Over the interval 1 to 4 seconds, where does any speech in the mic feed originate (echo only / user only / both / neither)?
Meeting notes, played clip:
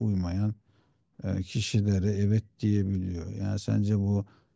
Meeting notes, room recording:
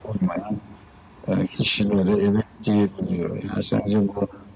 echo only